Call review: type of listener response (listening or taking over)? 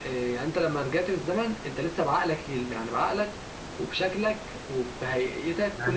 taking over